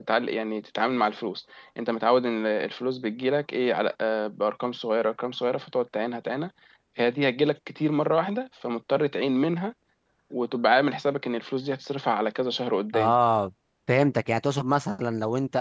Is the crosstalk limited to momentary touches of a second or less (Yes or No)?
Yes